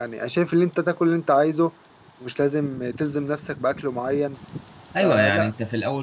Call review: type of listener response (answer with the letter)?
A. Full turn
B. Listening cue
A